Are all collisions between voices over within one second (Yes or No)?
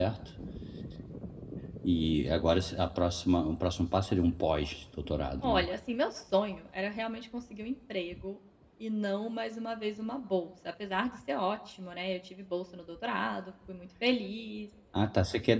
Yes